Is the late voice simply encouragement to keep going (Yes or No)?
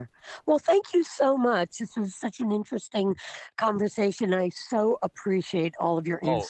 No